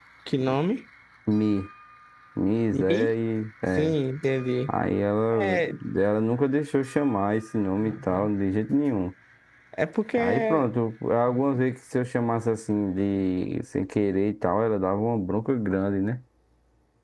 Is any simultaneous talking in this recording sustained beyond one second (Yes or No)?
No